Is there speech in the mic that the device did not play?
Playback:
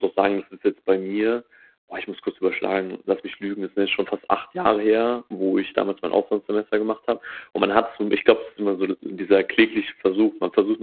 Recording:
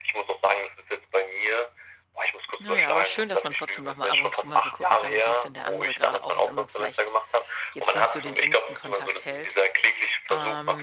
Yes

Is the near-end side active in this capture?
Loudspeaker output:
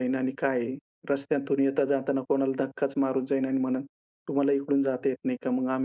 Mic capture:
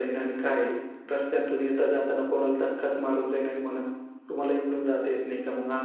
No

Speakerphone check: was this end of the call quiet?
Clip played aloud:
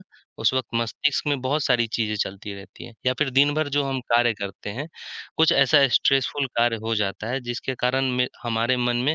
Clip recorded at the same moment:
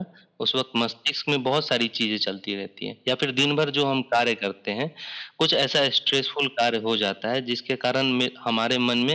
Yes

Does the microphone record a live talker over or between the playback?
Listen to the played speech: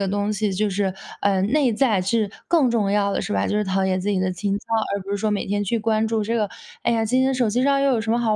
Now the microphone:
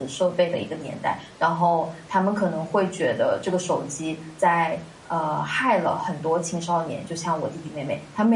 Yes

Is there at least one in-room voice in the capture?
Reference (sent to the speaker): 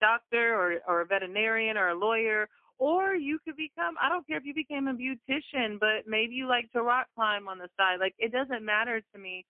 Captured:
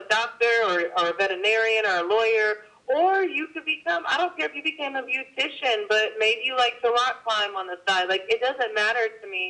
No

